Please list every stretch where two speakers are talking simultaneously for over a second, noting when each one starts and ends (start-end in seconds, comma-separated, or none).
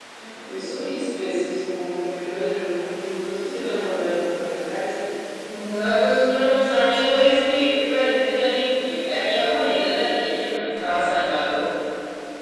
none